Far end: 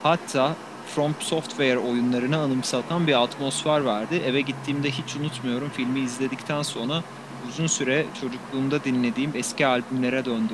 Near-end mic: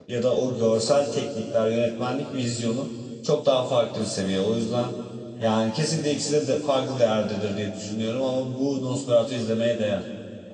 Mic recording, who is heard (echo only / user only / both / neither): user only